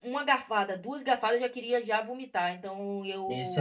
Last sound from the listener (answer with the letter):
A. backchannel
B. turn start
B